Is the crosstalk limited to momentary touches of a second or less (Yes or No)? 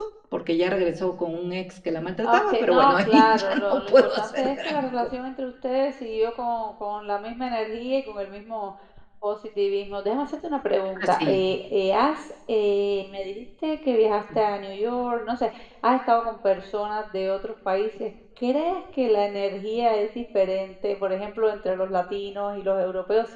No